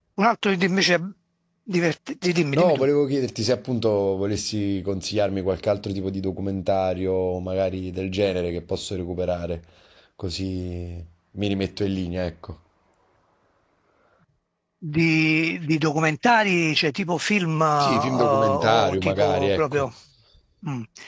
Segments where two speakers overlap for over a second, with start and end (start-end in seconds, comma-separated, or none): 17.8-19.9